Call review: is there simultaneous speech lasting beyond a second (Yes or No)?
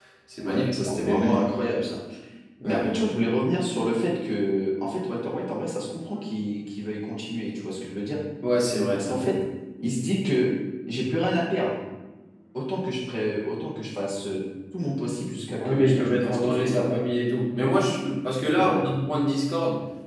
Yes